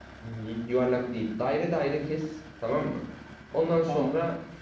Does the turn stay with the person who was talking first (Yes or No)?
Yes